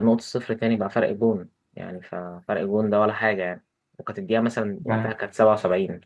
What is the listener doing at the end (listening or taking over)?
listening